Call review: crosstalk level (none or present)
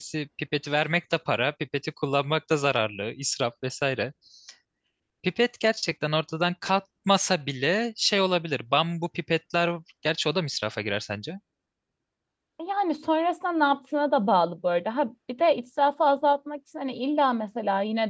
none